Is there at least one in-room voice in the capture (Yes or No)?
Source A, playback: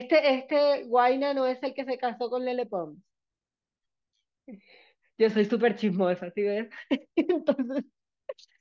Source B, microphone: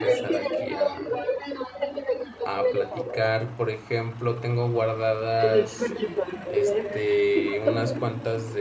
Yes